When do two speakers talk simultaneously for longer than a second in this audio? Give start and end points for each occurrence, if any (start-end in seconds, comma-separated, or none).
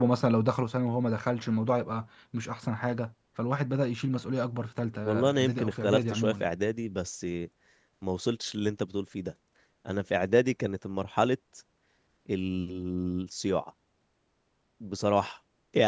5.0-6.5